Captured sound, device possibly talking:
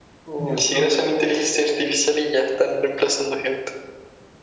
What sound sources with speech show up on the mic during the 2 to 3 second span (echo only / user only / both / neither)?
echo only